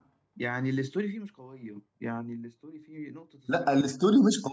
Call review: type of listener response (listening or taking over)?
taking over